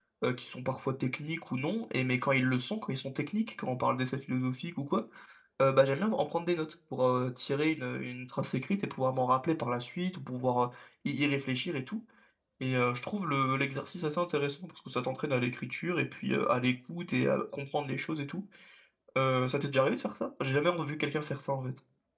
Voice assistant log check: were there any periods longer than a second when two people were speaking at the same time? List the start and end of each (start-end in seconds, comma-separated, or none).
none